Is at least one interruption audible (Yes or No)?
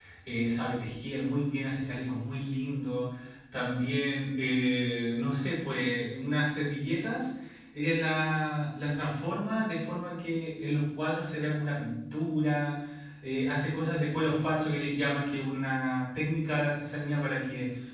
No